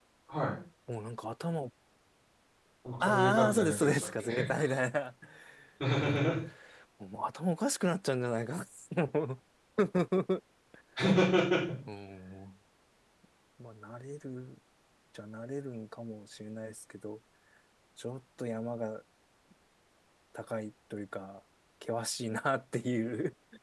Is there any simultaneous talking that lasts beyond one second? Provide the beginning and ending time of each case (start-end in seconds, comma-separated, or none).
3.0-4.5